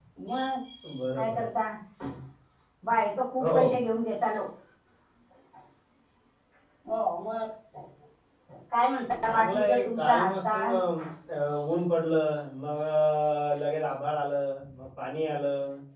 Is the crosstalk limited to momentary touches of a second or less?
No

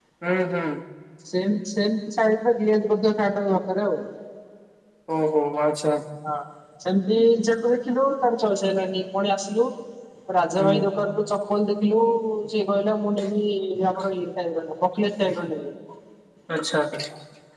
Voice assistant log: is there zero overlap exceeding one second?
Yes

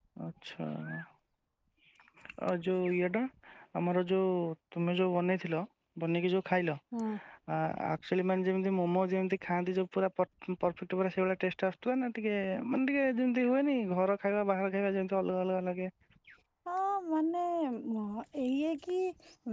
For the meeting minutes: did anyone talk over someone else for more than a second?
No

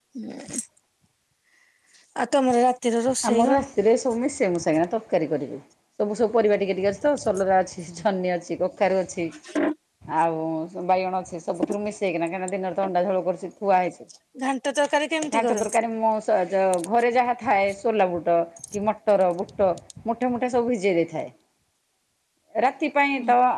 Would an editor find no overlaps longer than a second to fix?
Yes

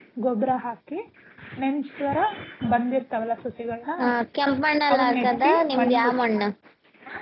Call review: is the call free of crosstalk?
No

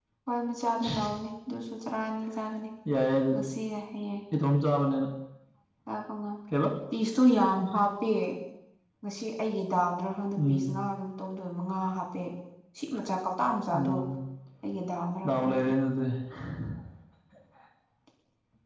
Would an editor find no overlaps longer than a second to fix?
Yes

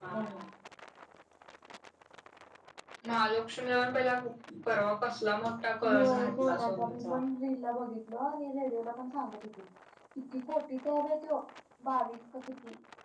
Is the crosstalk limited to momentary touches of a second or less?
No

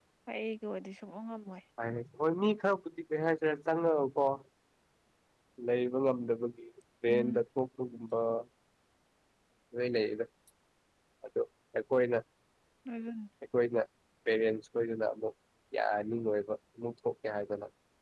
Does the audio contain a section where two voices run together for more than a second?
No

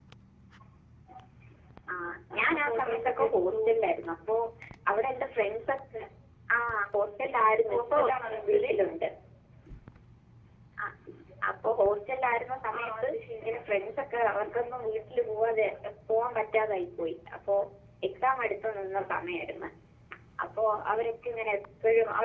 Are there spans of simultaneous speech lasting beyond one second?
Yes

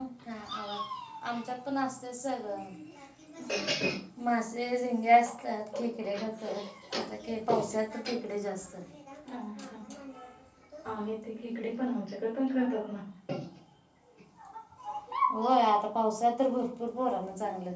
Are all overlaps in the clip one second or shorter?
Yes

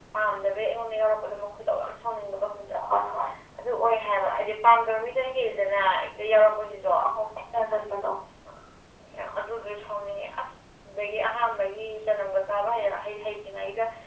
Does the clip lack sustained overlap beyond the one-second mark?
Yes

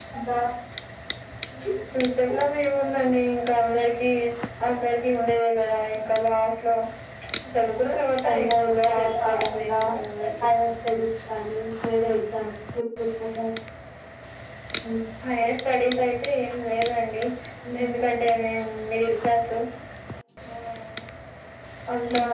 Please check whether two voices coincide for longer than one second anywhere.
Yes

